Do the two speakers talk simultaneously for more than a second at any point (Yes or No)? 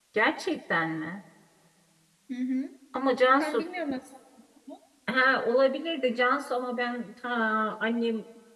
No